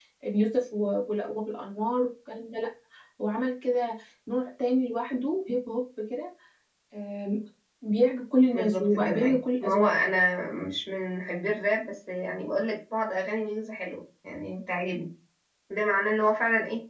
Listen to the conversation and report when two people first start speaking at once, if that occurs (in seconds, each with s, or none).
8.5 s